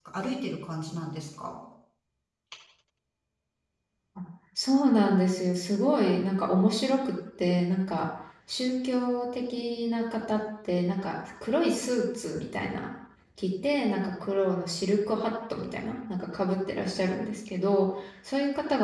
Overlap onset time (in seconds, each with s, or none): none